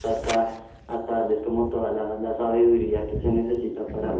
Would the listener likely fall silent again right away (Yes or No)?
Yes